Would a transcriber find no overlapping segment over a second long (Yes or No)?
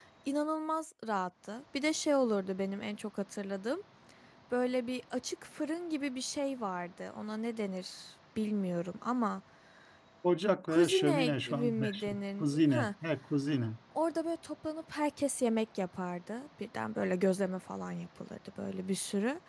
No